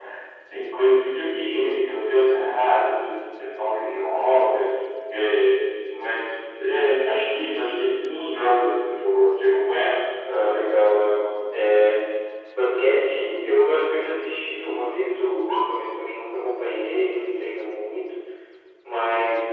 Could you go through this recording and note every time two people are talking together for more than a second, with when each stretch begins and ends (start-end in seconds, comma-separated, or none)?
none